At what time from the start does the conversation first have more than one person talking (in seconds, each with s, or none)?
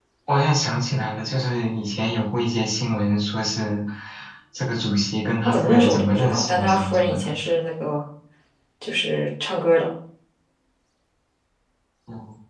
5.4 s